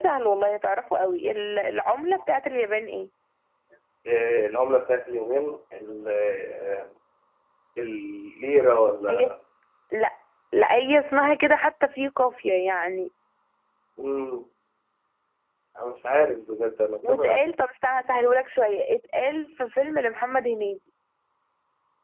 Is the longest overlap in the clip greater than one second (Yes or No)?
No